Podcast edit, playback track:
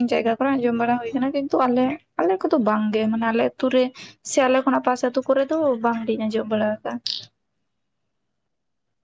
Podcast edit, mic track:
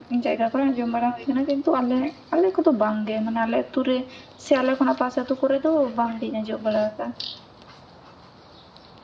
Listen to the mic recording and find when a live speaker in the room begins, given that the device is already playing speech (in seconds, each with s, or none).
none